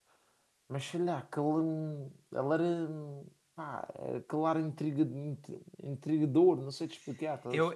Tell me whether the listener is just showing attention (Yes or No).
No